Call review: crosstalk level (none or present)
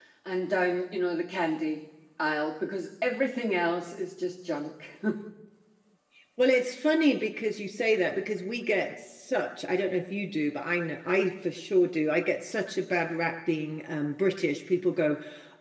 none